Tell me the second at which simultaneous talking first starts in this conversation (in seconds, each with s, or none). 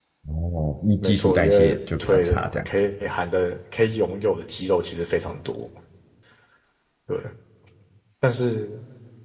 1.0 s